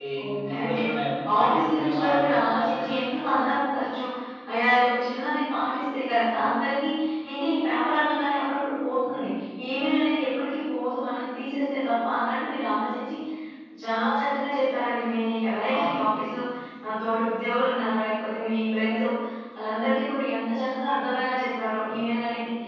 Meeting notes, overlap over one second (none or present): present